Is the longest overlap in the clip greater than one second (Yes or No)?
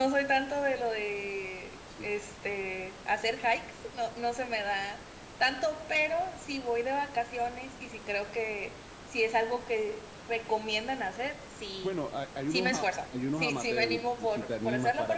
Yes